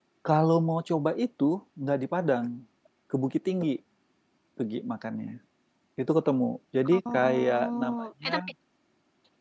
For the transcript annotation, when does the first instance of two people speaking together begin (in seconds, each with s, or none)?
6.8 s